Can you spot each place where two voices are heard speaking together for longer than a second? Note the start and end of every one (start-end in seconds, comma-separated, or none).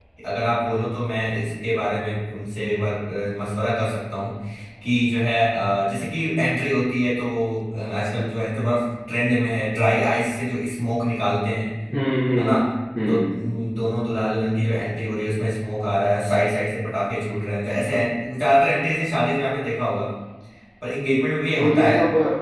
none